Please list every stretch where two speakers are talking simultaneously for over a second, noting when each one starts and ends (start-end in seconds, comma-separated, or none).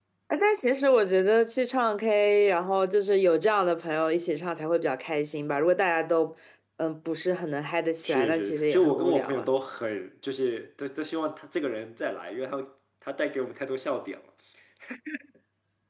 8.0-9.5